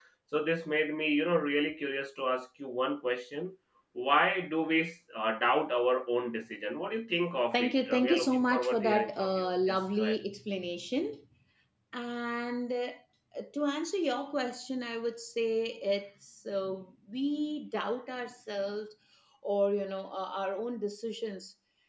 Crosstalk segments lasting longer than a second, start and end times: 7.5-10.2

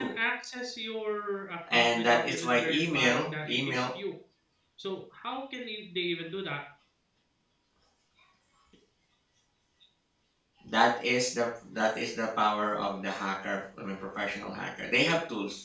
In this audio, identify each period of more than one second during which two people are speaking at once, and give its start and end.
1.7-3.9

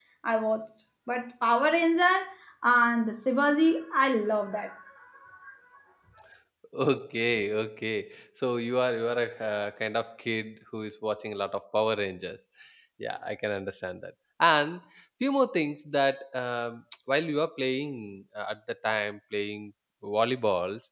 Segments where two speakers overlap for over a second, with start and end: none

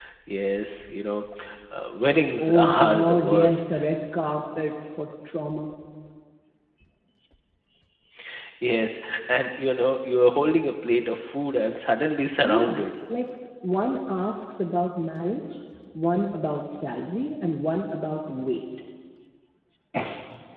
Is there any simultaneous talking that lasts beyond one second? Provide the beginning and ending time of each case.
2.4-3.8

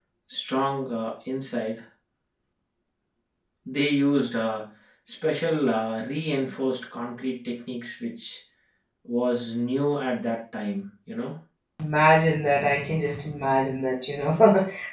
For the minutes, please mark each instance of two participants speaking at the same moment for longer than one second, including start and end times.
none

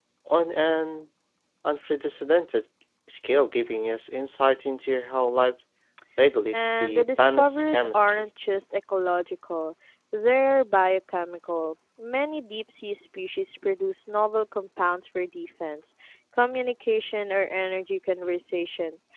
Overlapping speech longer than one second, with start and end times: 6.5-8.3

